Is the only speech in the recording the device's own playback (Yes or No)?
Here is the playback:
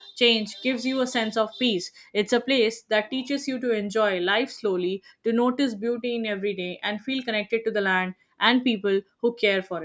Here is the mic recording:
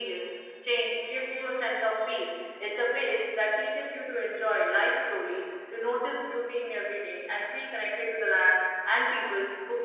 Yes